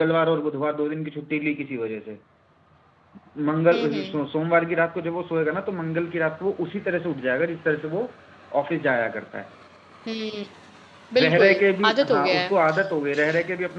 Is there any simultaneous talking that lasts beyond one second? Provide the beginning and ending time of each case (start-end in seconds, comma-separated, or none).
11.2-12.5